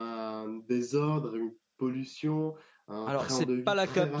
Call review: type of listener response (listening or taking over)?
taking over